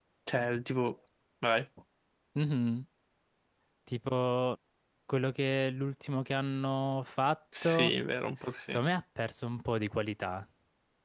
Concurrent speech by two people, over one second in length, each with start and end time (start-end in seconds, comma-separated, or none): none